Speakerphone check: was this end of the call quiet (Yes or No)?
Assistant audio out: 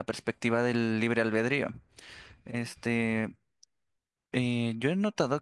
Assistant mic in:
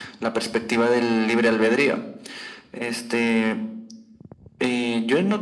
Yes